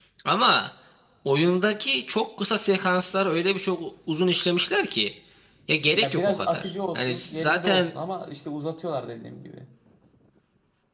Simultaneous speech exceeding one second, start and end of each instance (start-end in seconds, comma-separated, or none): 5.9-7.9